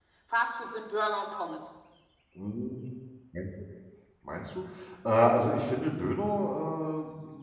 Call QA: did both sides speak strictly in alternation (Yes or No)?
Yes